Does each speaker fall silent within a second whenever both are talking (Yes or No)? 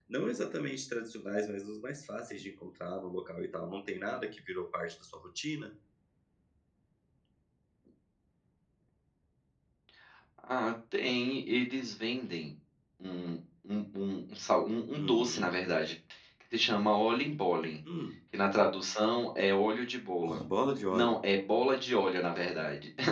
Yes